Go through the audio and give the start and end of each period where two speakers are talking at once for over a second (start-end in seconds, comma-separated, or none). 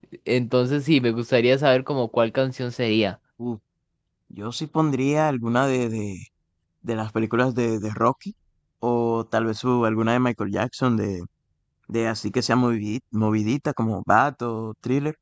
none